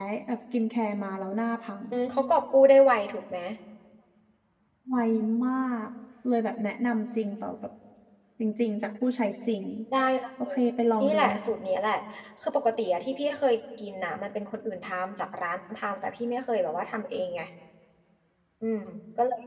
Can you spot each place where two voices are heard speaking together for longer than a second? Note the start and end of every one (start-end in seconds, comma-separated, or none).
none